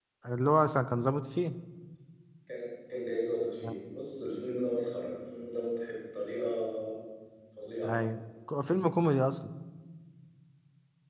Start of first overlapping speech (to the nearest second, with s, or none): none